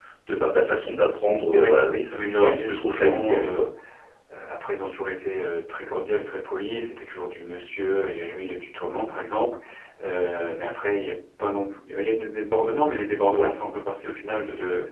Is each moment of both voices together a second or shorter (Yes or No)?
No